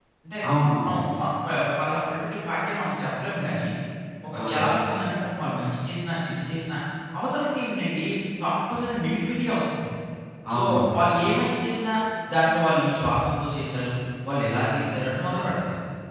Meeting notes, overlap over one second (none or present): none